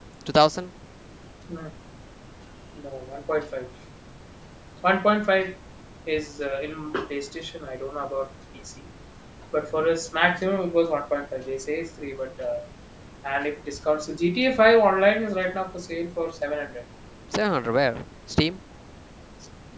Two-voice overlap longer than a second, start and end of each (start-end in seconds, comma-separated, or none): none